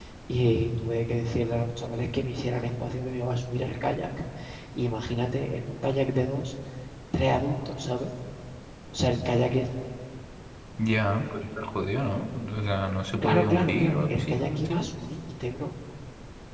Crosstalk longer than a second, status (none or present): present